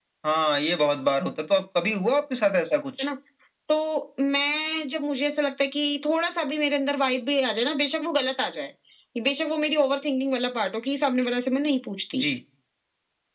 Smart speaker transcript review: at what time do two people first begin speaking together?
none

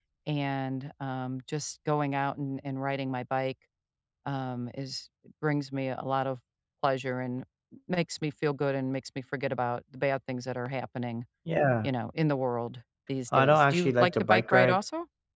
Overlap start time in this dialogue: 13 s

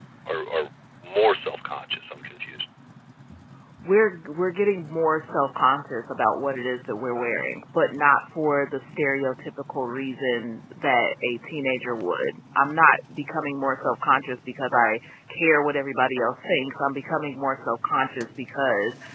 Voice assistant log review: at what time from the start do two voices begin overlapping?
none

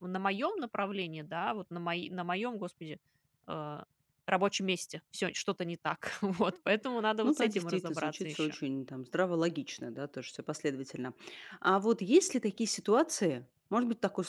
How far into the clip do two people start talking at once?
7 s

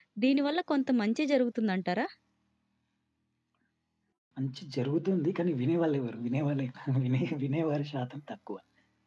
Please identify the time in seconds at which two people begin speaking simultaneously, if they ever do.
none

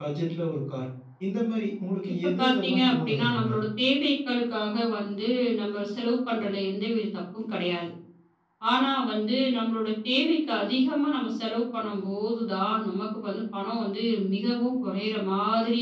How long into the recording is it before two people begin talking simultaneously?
2 s

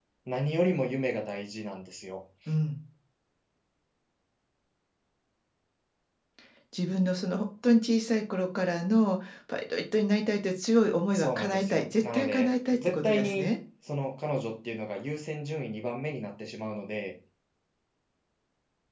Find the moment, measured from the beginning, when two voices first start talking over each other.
11 s

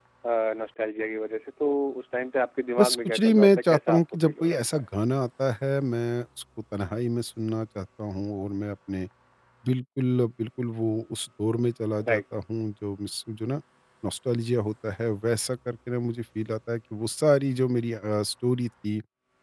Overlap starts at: 3 s

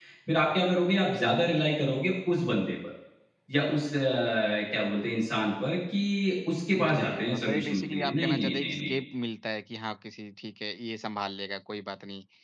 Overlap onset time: 7 s

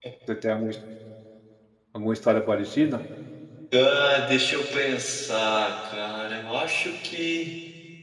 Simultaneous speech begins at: none

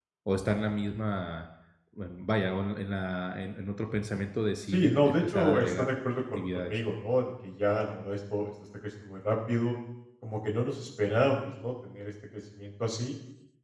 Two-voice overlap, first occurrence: 5 s

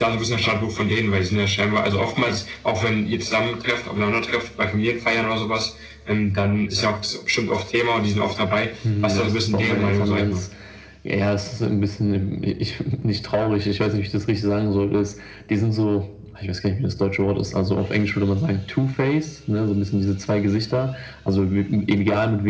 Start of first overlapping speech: 9 s

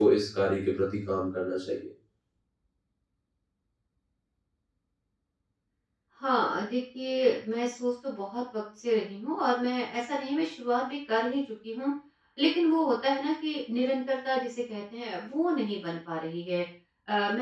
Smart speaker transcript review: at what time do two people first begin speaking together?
none

